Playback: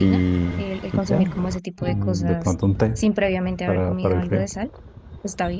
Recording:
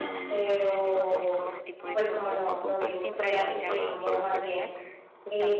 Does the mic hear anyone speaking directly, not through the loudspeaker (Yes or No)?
Yes